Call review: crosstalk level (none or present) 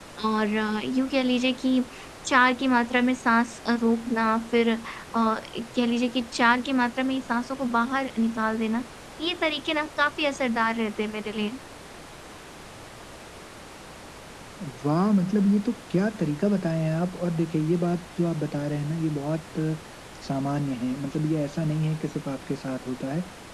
none